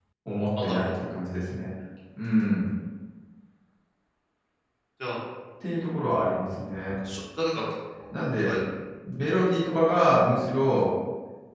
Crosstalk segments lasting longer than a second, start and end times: none

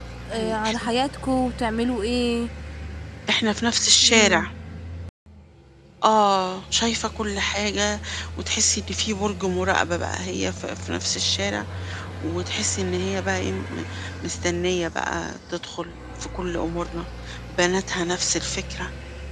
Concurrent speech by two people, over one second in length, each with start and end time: none

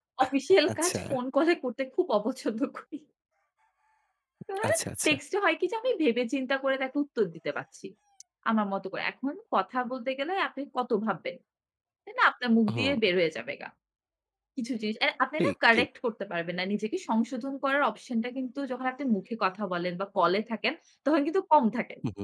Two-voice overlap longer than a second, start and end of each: none

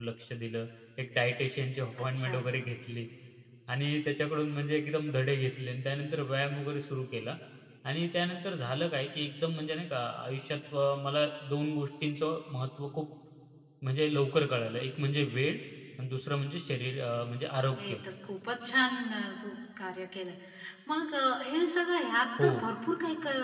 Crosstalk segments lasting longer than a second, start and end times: none

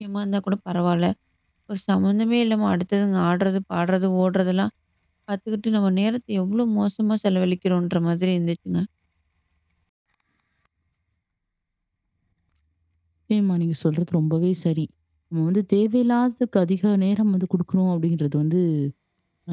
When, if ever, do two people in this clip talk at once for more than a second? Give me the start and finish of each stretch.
none

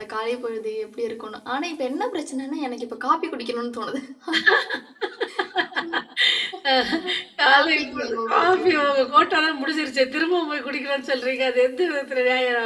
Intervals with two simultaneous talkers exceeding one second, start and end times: 7.5-8.9

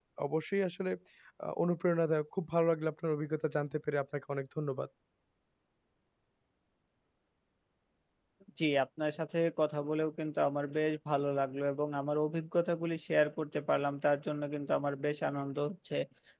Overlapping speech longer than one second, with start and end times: none

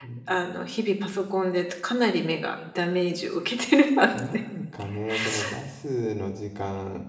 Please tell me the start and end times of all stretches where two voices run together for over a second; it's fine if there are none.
none

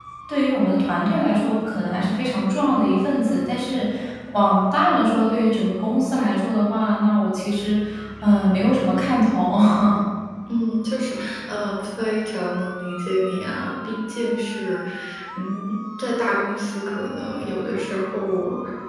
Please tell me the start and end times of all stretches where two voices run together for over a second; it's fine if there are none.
none

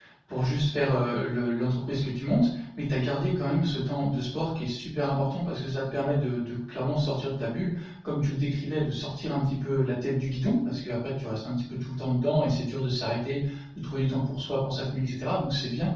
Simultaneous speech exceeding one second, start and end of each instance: none

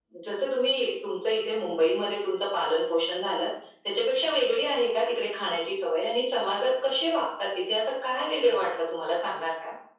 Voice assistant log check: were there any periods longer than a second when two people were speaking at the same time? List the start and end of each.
none

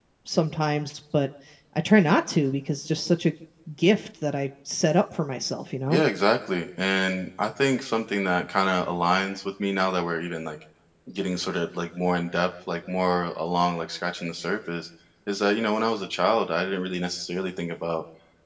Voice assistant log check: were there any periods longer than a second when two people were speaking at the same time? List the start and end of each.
none

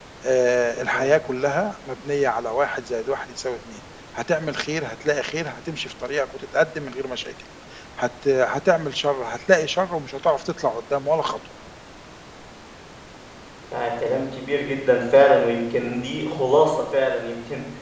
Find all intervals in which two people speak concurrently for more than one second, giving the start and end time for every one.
none

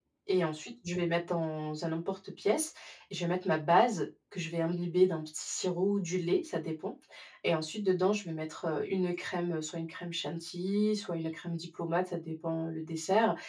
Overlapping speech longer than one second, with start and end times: none

